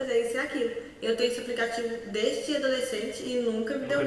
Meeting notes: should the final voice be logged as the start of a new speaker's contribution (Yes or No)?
Yes